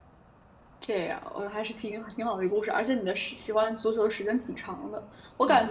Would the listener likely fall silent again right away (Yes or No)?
Yes